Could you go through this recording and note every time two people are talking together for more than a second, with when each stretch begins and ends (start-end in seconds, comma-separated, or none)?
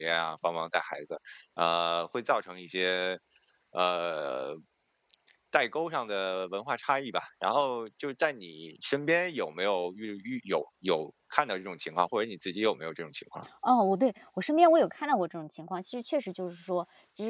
none